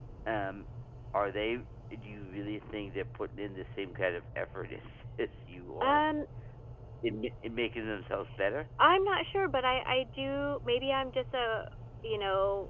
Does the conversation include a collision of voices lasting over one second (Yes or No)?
No